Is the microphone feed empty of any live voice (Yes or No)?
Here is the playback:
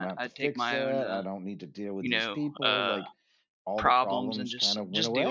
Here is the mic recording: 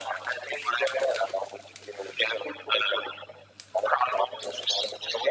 Yes